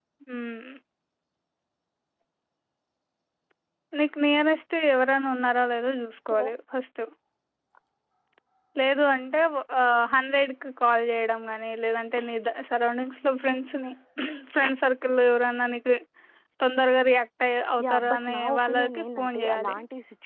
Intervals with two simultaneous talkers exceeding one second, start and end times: 17.8-19.7

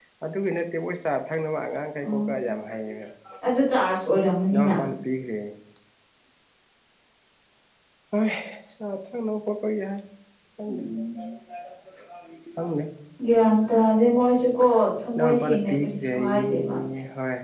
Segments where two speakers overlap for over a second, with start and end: 15.2-16.8

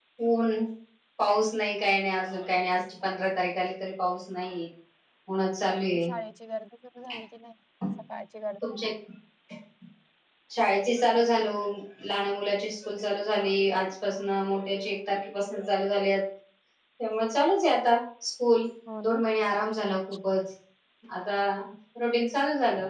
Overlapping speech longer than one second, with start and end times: none

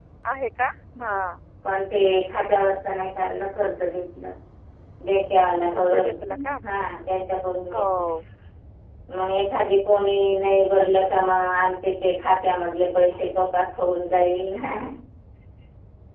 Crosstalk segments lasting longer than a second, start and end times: none

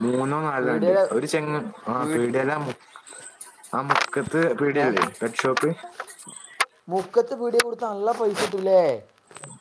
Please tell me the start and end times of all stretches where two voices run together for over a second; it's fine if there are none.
none

